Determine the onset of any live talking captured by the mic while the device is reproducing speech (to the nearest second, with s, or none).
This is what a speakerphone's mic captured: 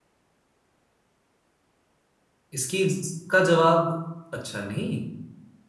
3 s